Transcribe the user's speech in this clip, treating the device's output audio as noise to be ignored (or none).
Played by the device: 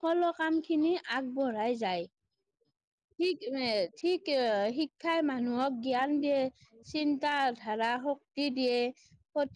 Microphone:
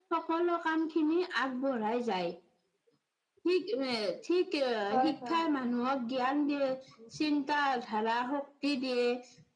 হয় হয়